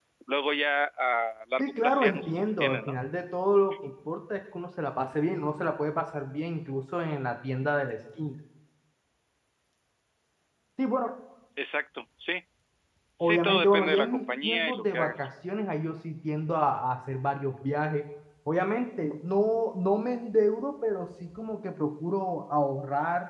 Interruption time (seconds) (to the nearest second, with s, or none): 2 s